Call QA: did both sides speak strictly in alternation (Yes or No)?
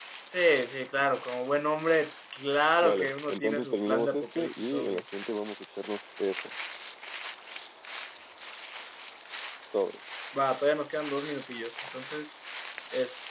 No